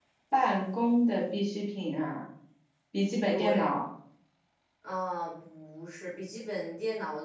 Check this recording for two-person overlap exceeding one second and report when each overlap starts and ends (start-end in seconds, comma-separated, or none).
none